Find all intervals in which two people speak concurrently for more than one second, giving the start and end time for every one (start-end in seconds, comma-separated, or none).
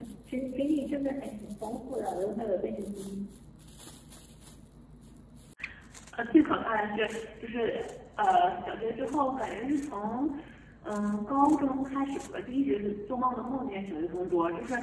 none